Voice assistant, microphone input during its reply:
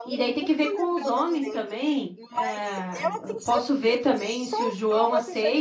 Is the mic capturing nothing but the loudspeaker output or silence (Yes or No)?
No